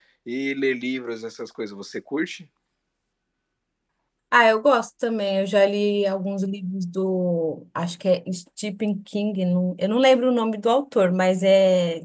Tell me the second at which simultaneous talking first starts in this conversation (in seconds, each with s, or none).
none